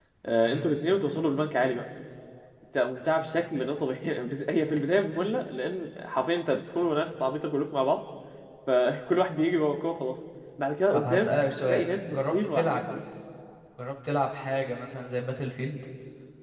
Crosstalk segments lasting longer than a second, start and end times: 10.9-12.8

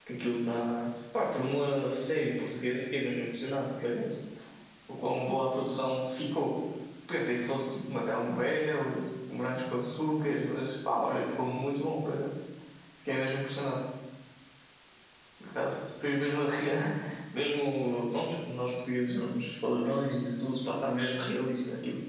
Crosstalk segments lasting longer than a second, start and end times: none

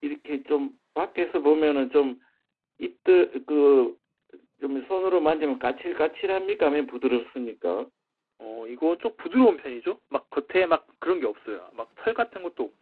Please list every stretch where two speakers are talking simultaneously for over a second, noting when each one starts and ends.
none

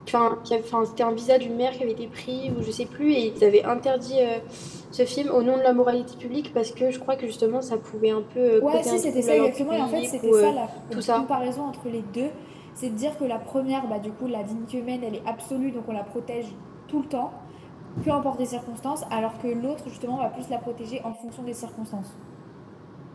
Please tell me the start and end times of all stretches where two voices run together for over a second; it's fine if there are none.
8.6-10.5

